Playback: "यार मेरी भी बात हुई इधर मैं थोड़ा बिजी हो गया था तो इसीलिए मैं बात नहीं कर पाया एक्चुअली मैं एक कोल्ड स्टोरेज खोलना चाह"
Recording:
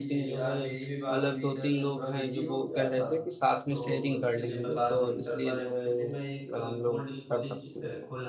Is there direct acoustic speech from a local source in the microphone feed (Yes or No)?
Yes